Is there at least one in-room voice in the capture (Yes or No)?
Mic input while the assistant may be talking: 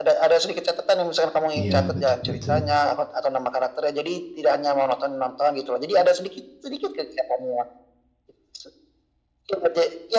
Yes